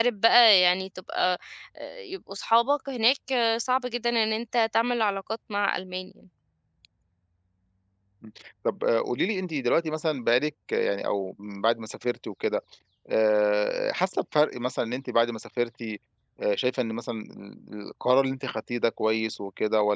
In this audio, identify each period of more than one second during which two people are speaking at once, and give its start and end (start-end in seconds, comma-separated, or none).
none